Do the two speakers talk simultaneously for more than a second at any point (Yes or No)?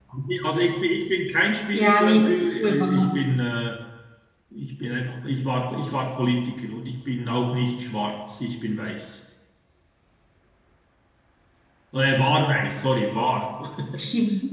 Yes